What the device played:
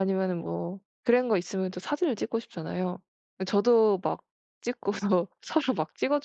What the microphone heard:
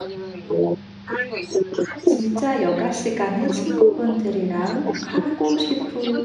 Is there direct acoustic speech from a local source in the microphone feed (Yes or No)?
Yes